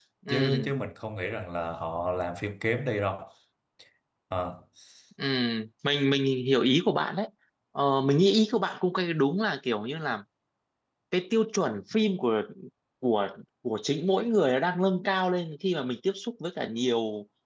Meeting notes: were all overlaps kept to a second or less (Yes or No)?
Yes